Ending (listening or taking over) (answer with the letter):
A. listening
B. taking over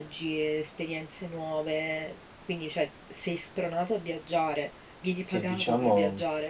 B